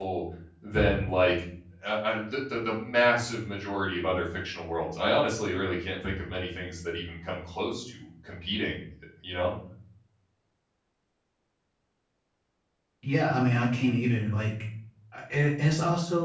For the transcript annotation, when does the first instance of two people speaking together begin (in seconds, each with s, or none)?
none